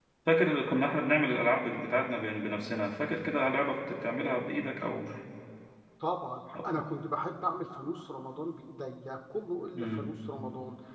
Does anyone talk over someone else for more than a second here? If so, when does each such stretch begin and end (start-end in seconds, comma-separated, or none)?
none